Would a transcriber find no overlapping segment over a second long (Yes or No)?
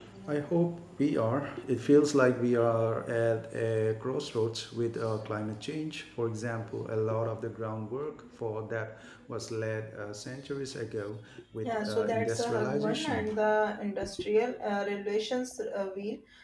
No